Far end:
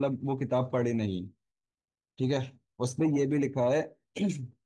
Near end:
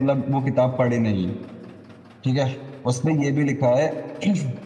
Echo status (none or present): present